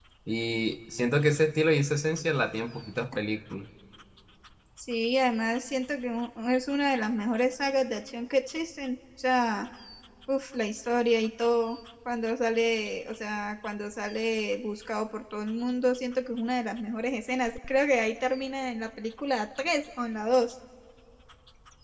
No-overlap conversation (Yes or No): Yes